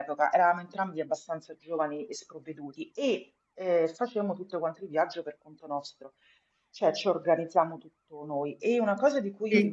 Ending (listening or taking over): listening